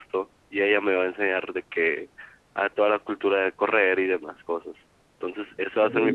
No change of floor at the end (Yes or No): Yes